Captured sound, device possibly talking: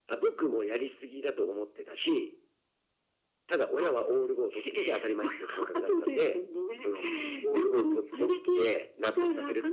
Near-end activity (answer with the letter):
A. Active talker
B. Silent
B